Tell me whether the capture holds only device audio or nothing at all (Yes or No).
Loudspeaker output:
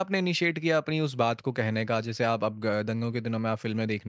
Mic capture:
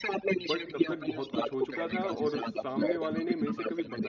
No